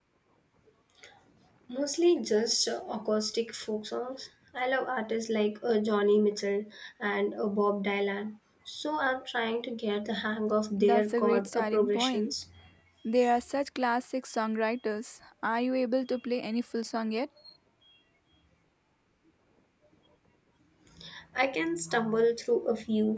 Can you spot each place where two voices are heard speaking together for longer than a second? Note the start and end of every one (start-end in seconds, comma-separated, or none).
10.8-12.3